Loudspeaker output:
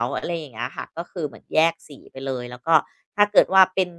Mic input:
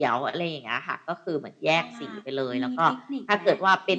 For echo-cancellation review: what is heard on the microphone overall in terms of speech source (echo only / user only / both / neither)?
both